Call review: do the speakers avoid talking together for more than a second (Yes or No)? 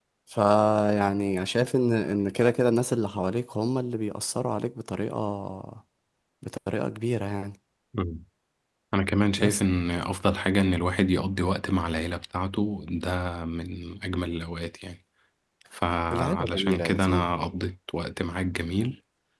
No